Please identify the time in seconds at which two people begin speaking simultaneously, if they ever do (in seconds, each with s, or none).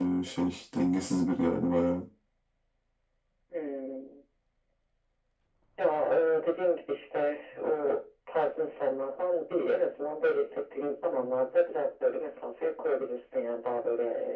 none